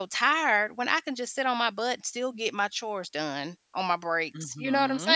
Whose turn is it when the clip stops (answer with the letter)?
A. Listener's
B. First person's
A